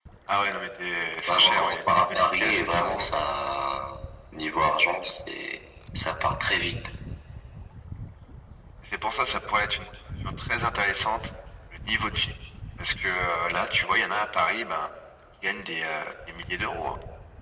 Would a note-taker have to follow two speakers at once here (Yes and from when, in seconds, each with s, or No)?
Yes, from 1.3 s